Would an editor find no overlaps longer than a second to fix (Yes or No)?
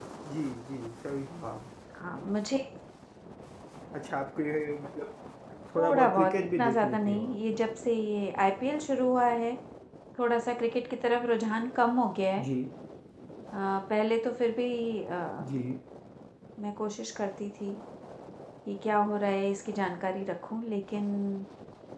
No